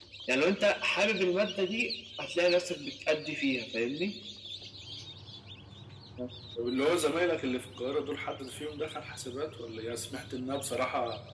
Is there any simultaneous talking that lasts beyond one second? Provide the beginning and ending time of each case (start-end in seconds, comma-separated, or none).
none